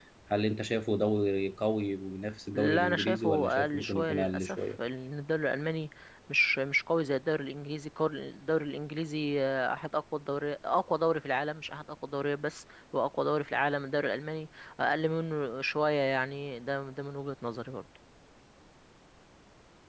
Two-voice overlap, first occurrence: 2.5 s

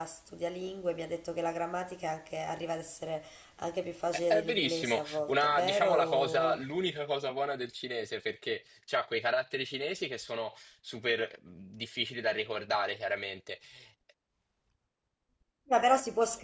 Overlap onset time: 4.3 s

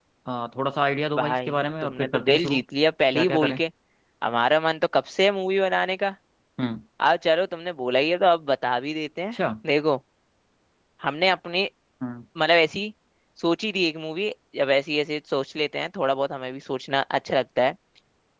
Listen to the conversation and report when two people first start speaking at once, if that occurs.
1.1 s

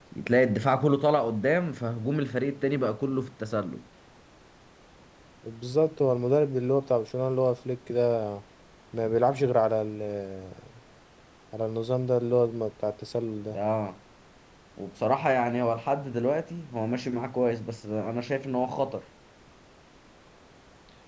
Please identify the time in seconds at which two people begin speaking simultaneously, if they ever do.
none

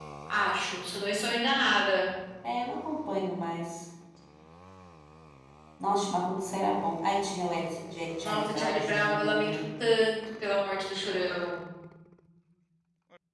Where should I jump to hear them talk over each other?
8.2 s

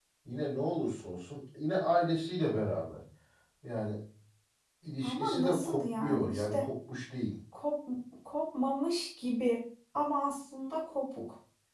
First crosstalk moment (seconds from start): 5.0 s

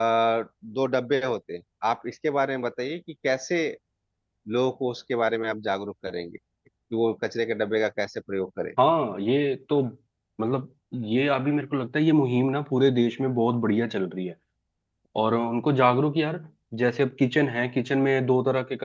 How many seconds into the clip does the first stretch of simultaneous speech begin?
none

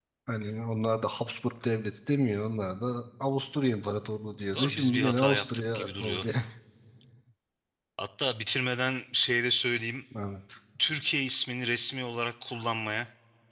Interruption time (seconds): 4.5 s

